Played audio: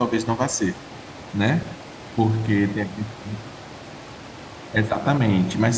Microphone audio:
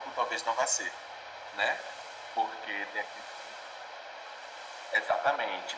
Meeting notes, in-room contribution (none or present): none